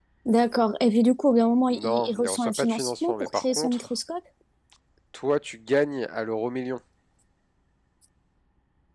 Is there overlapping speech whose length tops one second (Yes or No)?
Yes